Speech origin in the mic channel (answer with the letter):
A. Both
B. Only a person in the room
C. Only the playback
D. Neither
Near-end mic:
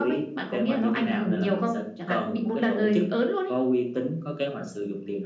C